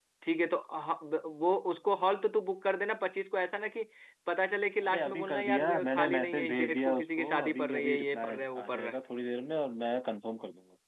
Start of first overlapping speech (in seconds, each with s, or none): 4.9 s